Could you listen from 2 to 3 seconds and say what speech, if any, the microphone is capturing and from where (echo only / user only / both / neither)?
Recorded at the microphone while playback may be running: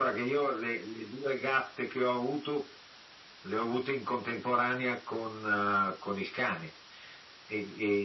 echo only